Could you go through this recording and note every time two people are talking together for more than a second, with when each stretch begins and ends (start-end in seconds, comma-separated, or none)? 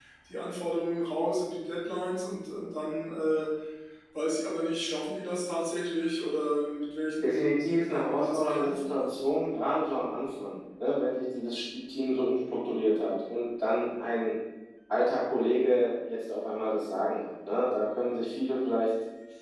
7.2-9.2